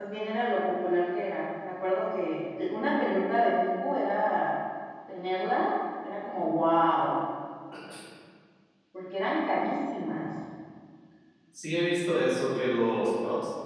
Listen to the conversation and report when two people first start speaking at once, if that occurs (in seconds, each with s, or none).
none